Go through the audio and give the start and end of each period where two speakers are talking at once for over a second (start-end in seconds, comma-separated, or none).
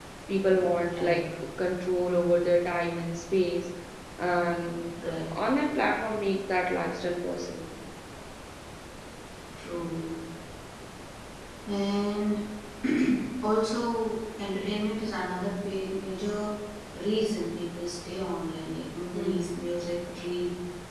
none